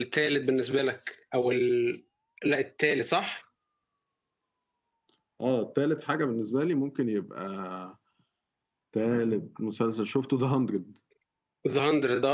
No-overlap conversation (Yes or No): Yes